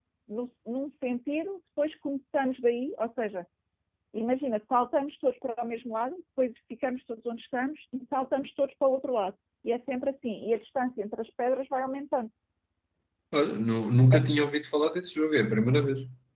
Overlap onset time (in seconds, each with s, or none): none